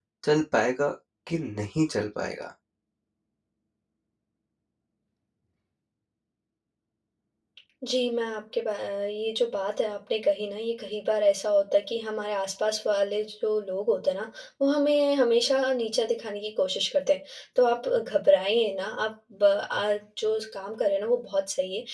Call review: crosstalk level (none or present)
none